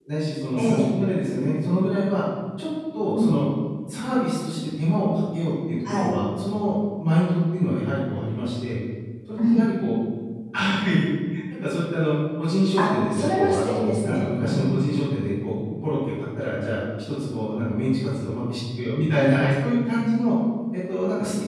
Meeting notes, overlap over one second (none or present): present